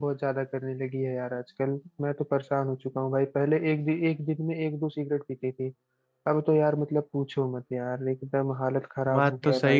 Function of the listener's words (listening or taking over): taking over